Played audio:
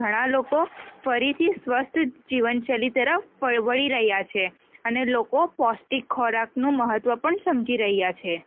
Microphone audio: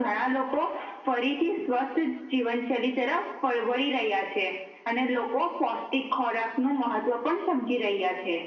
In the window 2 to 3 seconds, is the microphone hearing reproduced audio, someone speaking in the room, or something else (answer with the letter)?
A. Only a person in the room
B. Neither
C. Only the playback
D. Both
C